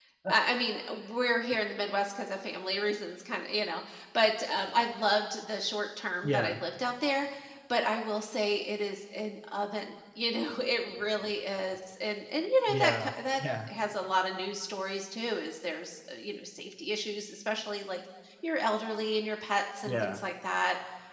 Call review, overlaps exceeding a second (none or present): none